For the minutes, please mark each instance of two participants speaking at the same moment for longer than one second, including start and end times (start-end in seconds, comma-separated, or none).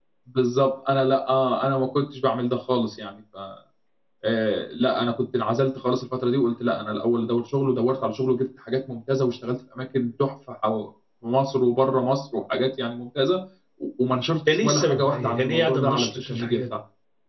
14.5-16.6